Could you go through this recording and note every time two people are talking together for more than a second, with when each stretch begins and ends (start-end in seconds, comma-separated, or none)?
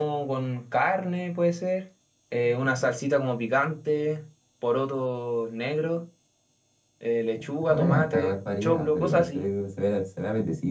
7.7-9.5